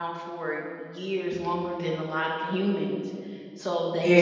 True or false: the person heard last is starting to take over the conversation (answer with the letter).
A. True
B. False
B